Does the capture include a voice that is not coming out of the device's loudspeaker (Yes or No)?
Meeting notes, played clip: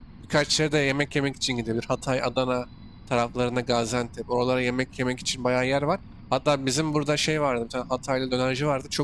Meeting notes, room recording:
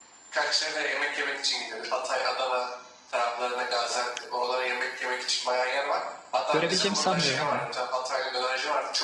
Yes